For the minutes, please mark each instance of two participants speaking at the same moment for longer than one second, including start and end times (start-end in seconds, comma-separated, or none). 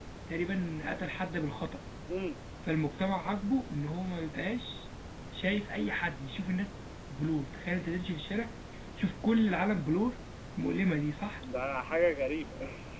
none